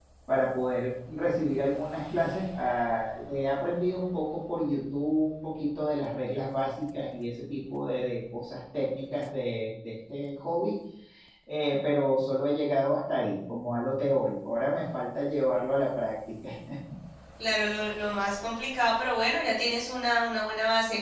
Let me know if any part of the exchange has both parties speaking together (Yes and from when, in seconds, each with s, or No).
No